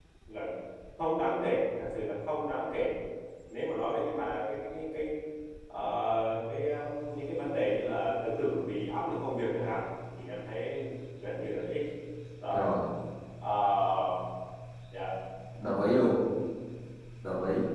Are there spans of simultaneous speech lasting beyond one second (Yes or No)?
No